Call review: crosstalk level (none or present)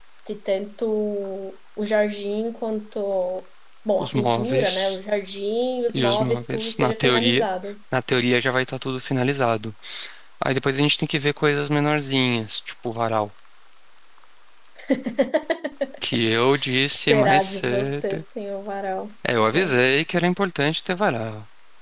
present